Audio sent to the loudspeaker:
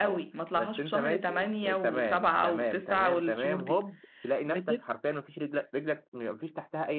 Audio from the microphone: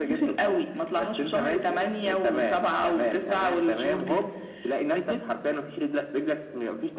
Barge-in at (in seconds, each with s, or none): none